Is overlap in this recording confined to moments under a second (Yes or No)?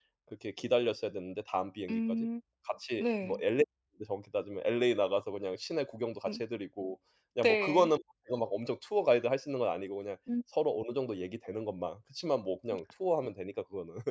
Yes